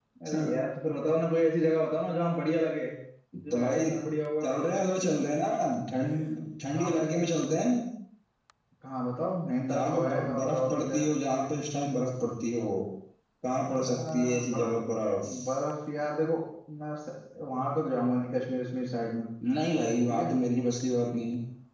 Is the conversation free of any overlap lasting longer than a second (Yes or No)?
No